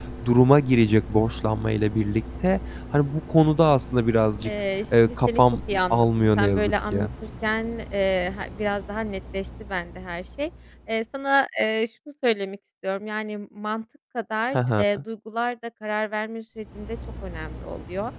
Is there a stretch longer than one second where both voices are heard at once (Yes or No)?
Yes